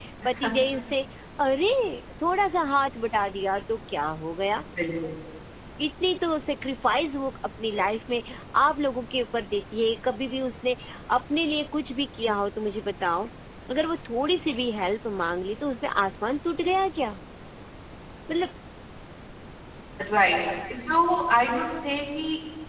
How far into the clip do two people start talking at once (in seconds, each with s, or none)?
none